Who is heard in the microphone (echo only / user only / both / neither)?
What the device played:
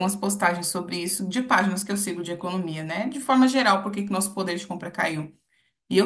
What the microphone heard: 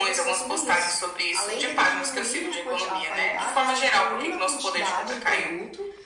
both